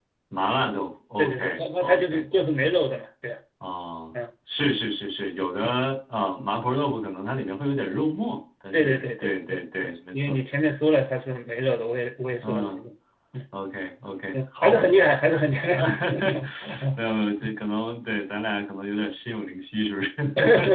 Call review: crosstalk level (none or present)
present